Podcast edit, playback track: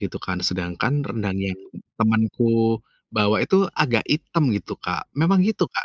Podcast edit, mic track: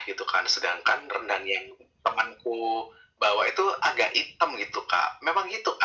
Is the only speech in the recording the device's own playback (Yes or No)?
Yes